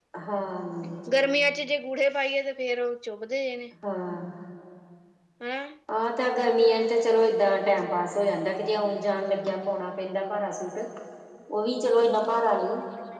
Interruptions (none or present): none